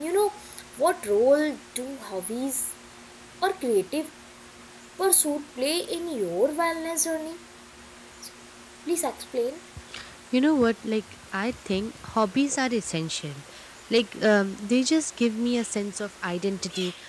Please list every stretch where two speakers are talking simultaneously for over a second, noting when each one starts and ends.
none

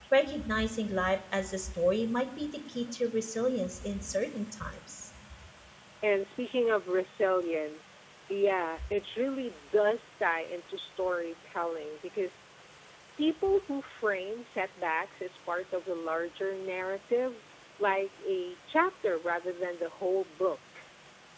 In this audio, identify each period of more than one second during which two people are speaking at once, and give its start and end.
none

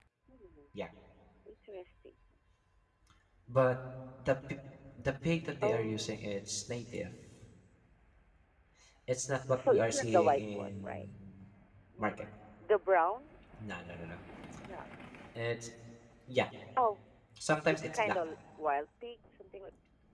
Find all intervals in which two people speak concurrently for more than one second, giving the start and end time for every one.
9.6-11.1

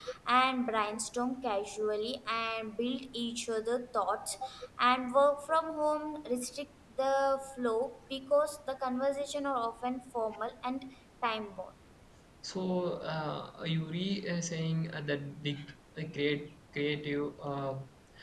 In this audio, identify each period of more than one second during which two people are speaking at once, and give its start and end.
none

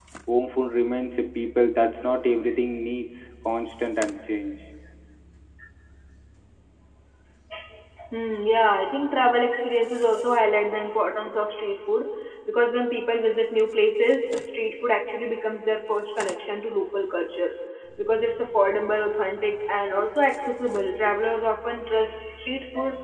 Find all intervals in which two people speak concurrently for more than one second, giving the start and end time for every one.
none

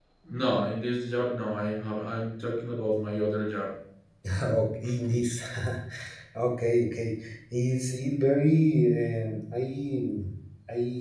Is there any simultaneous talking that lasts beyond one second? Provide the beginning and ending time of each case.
none

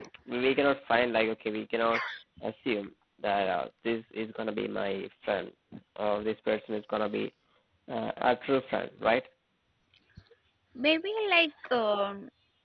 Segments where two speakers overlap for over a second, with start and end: none

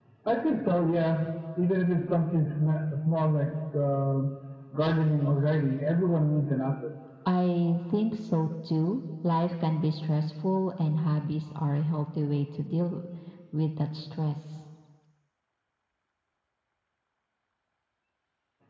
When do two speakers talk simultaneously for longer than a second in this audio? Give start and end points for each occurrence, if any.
none

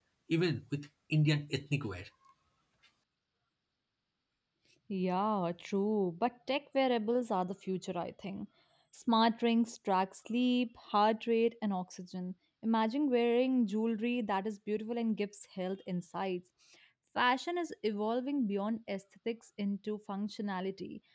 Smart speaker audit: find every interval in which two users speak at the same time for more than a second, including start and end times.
none

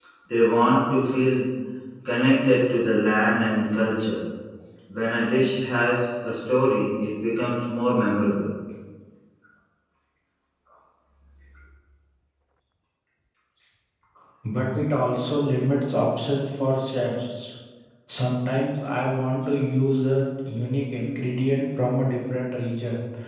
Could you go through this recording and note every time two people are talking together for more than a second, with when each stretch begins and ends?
none

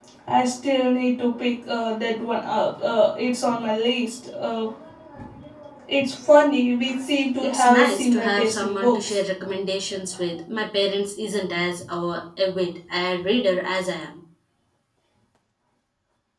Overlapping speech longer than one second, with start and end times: 7.4-9.2

